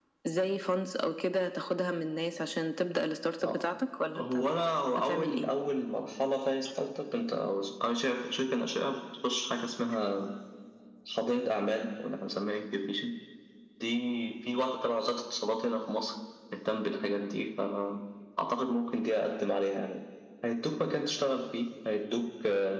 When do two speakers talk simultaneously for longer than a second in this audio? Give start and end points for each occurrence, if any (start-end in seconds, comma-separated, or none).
none